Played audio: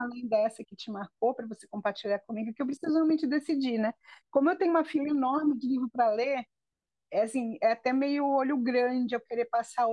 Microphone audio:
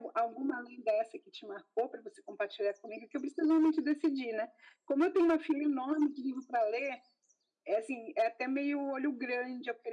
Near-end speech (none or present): none